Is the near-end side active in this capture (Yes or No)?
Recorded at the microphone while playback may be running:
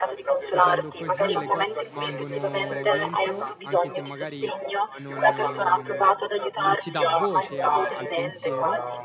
Yes